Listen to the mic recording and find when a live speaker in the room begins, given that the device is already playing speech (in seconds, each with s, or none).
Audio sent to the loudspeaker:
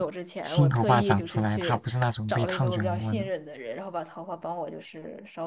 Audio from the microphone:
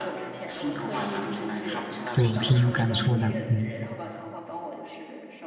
2.1 s